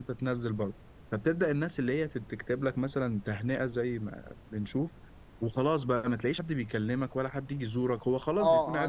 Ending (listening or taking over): taking over